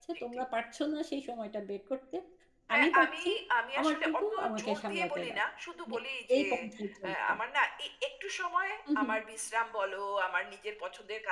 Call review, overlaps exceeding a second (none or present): present